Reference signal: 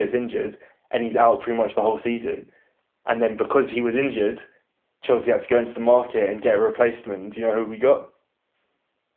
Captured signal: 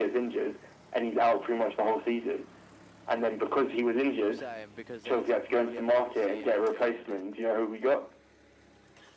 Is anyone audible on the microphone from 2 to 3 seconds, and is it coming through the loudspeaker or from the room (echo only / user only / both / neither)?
echo only